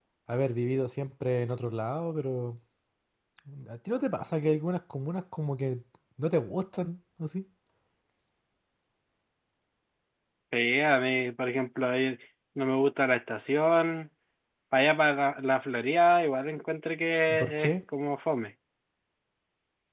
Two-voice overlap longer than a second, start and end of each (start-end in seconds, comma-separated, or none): none